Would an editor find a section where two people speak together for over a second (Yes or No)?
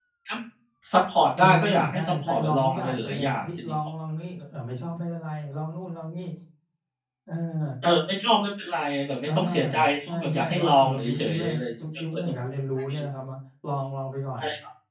Yes